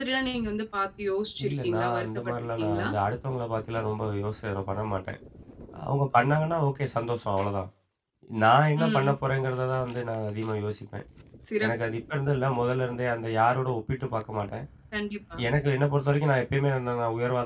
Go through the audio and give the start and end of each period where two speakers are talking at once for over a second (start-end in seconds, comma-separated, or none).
1.4-2.9